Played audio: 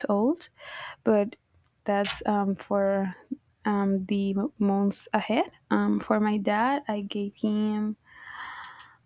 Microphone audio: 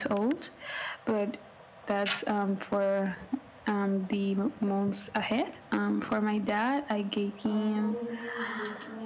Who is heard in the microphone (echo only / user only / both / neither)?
both